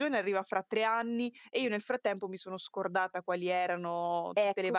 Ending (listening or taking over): taking over